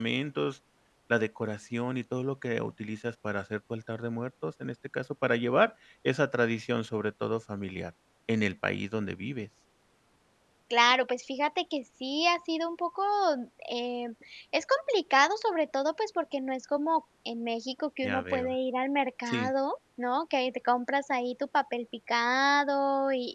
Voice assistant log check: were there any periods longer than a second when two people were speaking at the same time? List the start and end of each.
none

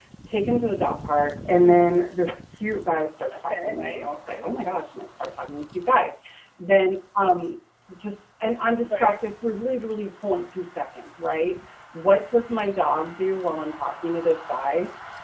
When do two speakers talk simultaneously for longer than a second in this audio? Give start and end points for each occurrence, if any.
3.3-4.6

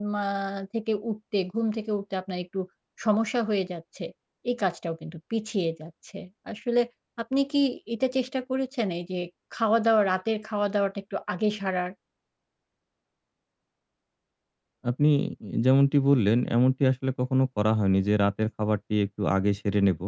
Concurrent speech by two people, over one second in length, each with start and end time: none

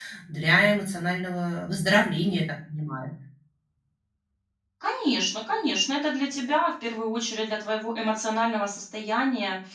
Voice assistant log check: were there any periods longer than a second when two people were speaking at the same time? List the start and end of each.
none

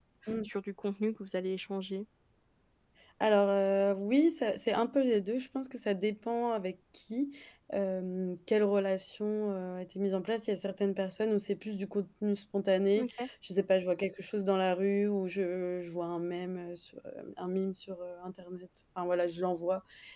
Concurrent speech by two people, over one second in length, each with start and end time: none

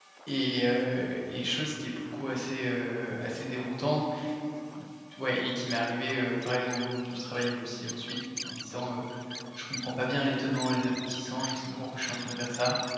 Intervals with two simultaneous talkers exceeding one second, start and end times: none

